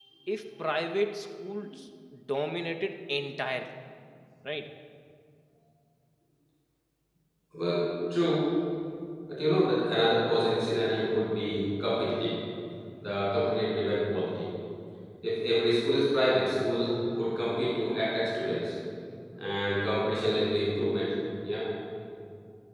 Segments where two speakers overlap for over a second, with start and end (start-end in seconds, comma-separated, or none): none